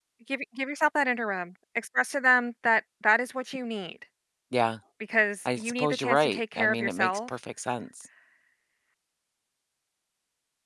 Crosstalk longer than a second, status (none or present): present